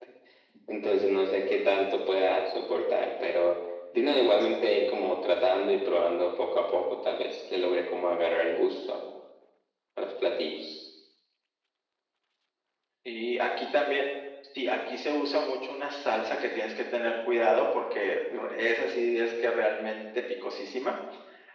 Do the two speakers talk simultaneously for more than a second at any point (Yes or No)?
No